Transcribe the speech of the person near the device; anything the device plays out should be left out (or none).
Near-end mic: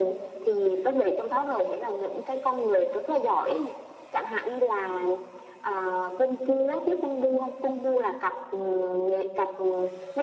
none